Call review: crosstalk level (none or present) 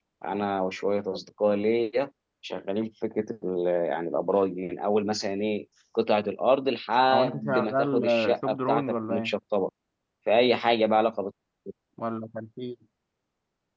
present